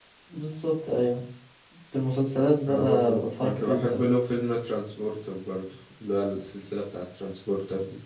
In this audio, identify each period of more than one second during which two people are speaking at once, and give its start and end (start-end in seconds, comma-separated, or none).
2.7-4.0